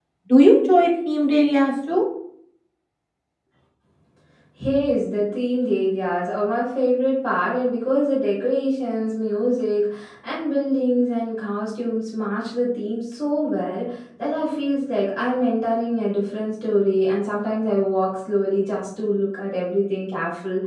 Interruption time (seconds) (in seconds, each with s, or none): none